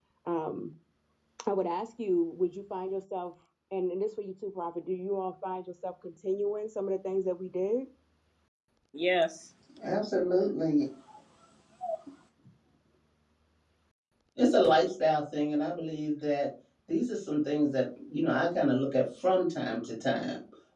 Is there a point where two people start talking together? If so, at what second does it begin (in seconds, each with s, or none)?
none